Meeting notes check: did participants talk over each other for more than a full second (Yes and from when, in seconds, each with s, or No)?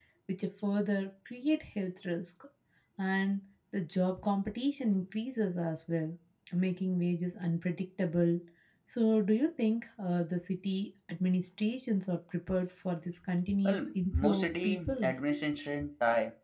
Yes, from 13.6 s